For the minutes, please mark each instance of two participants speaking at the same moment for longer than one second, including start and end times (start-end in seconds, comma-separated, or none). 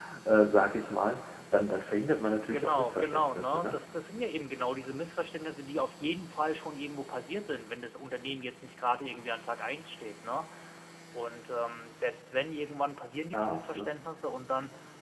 2.5-3.8